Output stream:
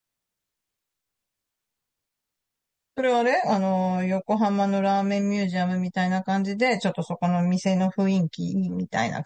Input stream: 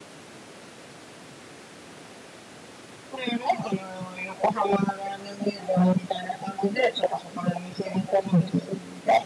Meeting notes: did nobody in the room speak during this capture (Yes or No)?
Yes